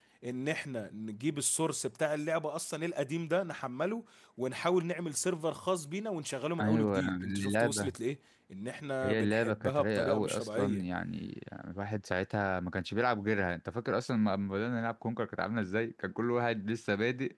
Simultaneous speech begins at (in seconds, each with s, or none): 6.6 s